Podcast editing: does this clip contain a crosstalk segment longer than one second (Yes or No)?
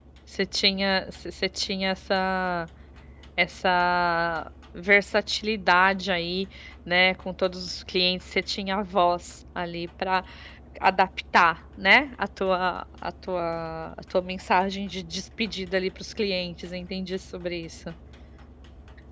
No